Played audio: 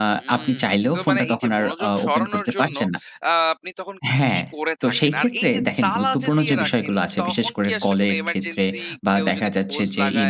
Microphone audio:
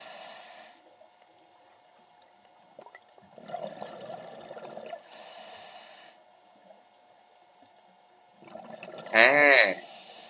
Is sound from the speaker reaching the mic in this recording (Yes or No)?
No